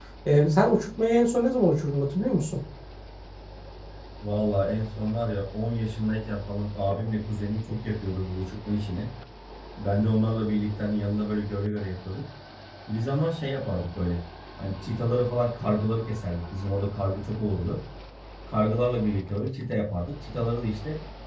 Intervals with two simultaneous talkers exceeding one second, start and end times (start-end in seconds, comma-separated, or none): none